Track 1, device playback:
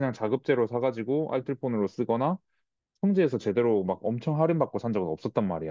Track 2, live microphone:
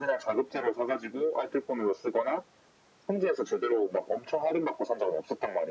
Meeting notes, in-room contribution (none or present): none